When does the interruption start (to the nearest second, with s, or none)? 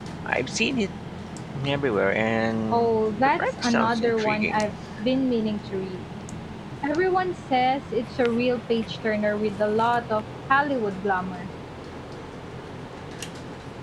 3 s